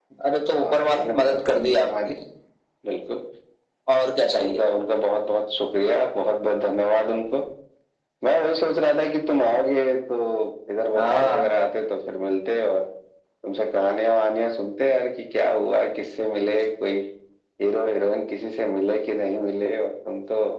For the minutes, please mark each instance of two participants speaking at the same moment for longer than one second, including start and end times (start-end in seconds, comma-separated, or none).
0.6-2.1